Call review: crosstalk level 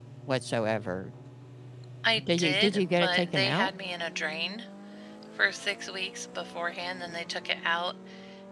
present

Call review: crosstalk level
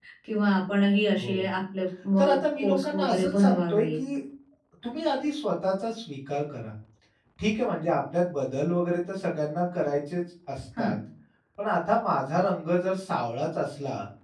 present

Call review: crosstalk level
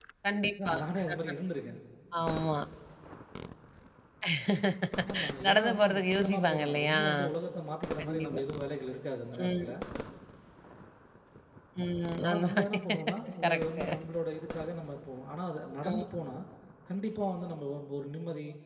present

